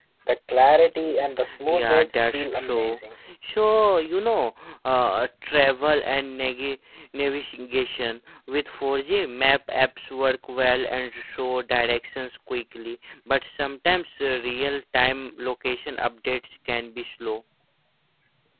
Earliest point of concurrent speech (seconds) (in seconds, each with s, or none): 1.7 s